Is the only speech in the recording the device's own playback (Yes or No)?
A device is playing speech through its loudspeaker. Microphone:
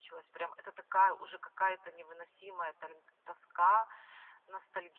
Yes